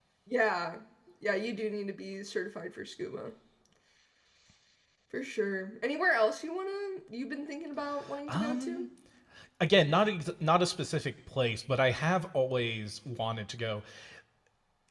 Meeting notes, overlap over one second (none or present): none